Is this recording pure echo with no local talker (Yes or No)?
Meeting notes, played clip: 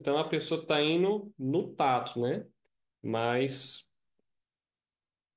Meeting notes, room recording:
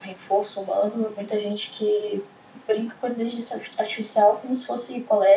No